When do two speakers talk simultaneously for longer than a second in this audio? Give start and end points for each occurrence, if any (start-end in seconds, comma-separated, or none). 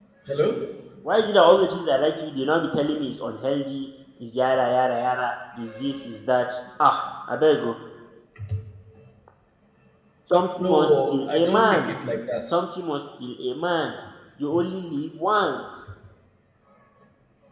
10.6-11.9